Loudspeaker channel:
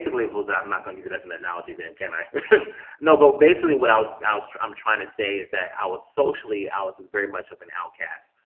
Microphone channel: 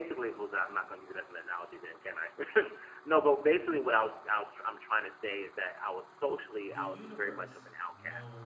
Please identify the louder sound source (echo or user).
echo